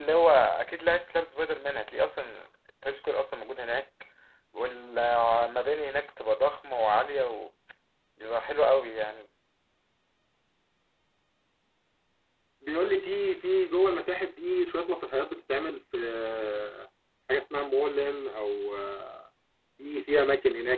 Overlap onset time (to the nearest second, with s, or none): none